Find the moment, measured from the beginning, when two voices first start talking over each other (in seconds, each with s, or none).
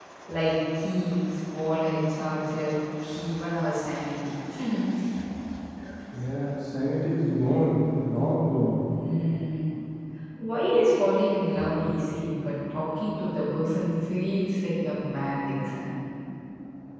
none